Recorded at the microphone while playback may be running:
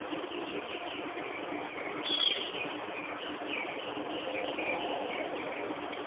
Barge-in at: none

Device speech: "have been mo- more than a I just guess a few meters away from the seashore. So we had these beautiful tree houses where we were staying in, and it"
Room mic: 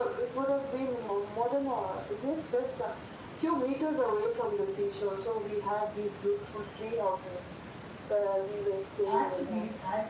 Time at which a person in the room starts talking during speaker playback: 9.1 s

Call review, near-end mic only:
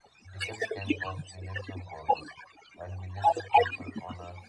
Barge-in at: 0.3 s

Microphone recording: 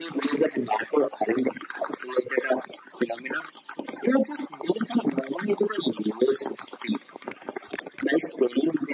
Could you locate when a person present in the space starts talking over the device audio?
none

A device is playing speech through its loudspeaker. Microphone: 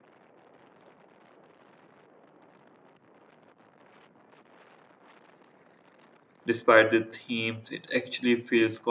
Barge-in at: 6.5 s

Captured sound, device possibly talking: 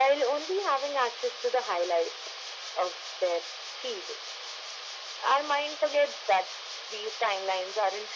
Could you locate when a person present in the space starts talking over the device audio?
none

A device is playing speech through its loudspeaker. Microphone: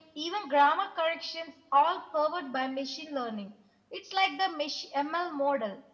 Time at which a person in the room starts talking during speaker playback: none

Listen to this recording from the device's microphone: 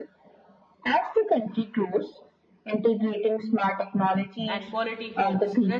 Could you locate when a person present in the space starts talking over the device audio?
4.5 s

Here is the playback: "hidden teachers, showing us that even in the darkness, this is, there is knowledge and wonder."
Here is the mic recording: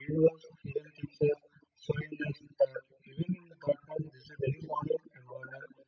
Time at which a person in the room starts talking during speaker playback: none

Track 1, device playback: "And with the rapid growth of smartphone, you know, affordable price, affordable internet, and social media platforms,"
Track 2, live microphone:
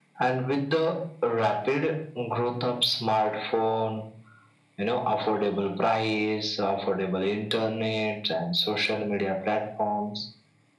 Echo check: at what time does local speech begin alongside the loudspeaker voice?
none

